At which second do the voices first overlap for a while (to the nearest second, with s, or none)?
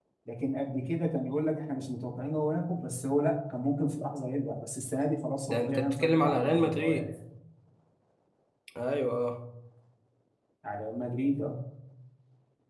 5 s